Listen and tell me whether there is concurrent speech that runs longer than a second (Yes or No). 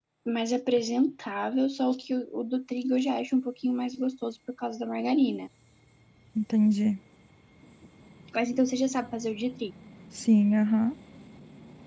No